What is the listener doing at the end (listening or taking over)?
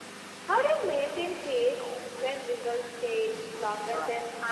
taking over